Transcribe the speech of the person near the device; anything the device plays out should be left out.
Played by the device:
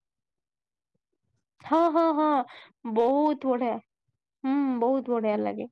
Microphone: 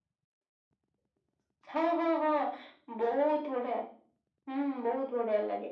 none

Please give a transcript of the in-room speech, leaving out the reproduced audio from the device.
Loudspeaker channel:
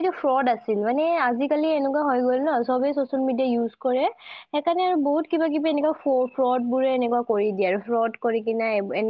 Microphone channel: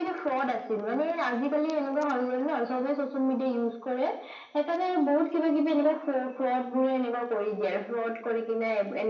none

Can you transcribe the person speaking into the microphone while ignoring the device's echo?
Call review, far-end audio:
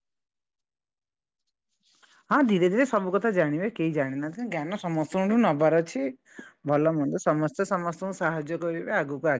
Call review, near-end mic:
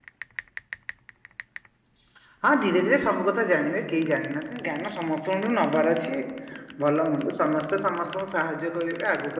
none

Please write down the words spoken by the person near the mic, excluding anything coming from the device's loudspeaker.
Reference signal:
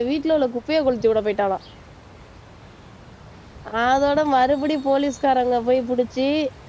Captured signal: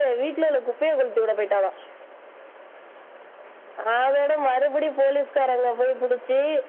none

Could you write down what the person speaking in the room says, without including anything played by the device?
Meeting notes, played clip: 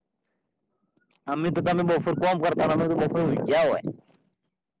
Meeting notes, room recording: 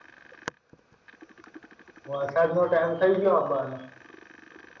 વરસાદનો ટાઈમ થઈ ગયો આબાનો.

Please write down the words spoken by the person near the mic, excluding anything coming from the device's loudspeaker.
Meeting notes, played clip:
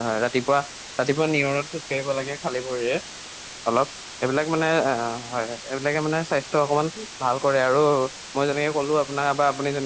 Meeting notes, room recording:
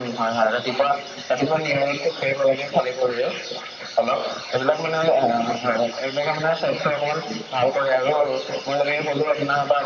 none

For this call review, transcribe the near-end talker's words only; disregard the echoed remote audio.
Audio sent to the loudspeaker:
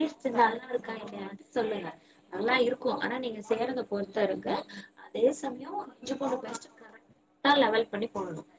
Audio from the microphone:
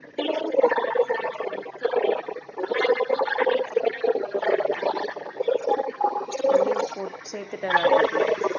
தண்ணி போ சே த்துட்டே நாட்டுக்கு

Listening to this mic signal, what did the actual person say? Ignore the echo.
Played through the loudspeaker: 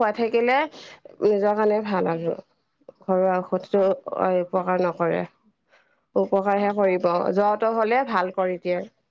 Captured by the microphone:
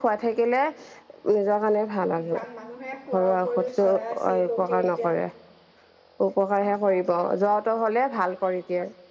কাৰণ মানুহে শোৱাৰ উপৰিও চৰাই চিৰিকটি। তিয়া

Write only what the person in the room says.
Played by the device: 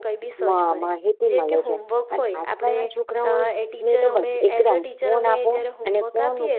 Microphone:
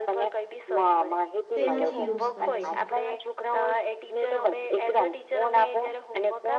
તેનાથી યુઝ કરે છે.

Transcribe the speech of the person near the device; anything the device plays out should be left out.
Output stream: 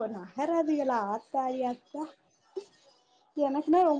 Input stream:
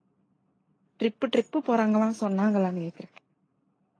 ட்ரிப்பு ட்ரிப்பு போறாங்களா சொன்னாங்களான்னு கேக்குற

